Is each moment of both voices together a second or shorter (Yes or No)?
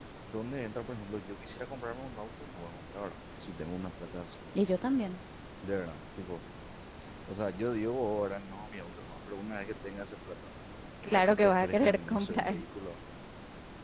No